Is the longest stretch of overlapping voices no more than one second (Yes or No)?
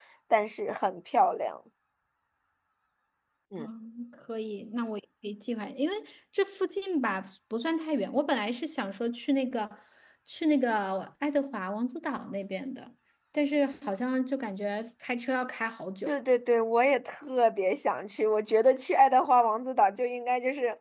Yes